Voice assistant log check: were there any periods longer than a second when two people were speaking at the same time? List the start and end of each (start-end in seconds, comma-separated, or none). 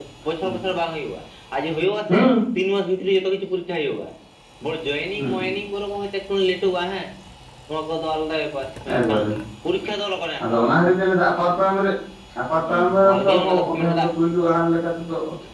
12.7-14.1